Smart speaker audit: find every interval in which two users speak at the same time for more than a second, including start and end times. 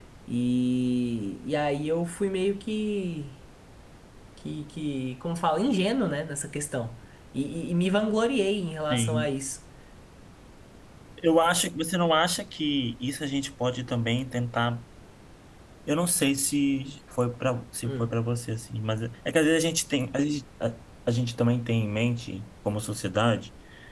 none

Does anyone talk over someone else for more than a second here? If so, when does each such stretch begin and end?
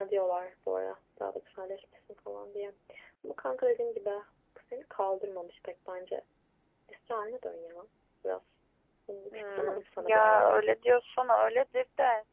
9.3-10.6

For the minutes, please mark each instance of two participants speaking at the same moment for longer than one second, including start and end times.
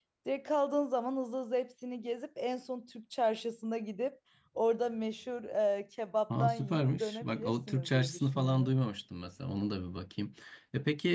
6.4-8.7

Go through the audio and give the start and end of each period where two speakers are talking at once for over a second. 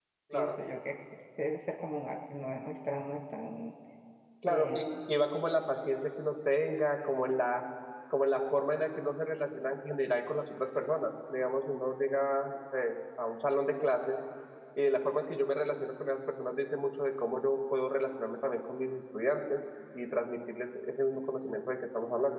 none

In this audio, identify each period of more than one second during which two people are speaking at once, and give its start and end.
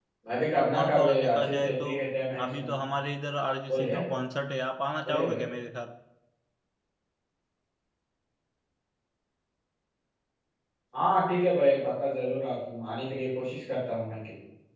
0.7-1.9

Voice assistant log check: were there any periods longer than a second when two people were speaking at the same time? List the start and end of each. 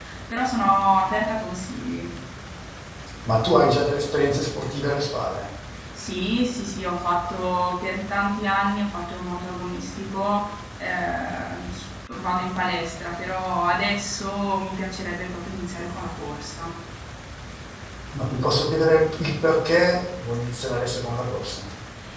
none

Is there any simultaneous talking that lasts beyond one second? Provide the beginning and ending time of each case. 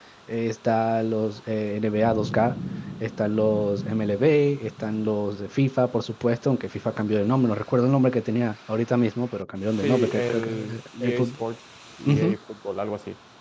9.8-11.3

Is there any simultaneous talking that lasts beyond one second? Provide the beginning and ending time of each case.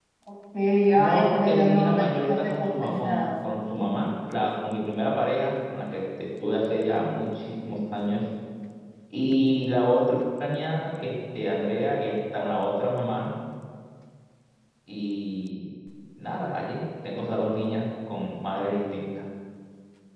0.9-3.3

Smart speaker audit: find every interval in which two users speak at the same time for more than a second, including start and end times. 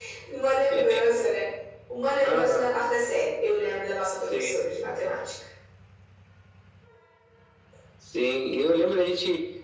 none

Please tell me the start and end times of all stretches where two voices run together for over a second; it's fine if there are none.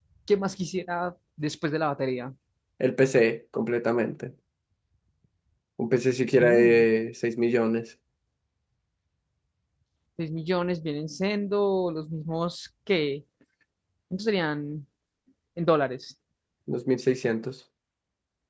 none

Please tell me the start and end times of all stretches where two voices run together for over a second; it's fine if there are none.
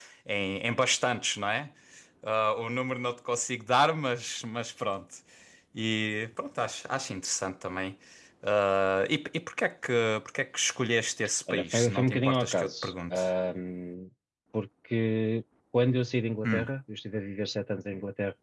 11.5-13.3

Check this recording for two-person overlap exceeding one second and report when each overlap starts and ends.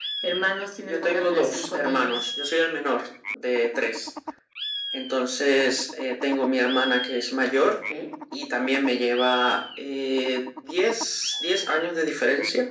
0.8-2.2

